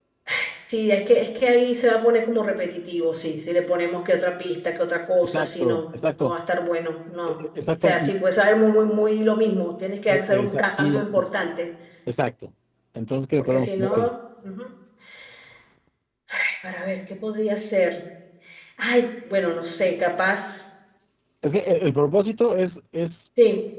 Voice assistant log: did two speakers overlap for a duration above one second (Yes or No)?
Yes